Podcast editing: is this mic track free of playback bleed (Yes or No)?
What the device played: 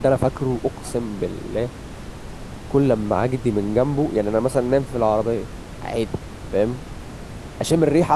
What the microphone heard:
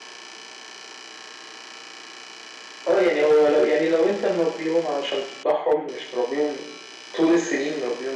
Yes